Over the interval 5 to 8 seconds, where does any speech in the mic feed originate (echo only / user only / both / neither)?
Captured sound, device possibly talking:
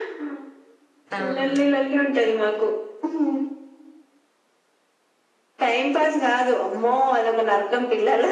echo only